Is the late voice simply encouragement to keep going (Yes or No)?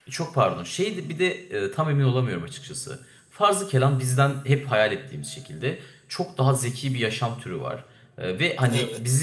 Yes